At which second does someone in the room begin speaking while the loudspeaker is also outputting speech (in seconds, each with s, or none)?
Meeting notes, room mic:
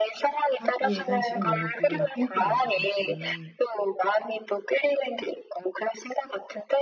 0.5 s